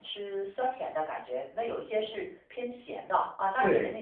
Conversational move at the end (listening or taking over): taking over